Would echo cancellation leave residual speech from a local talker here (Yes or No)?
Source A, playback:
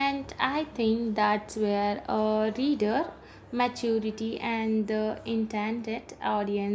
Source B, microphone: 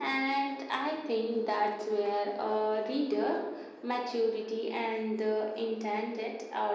No